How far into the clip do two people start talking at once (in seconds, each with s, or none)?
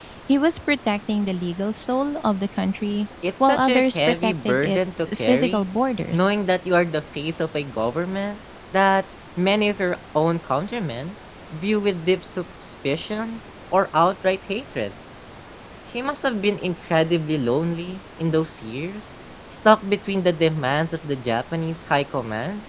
3.2 s